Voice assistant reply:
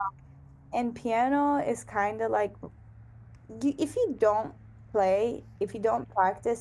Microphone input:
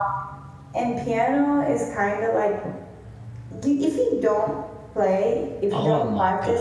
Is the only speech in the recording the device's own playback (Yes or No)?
No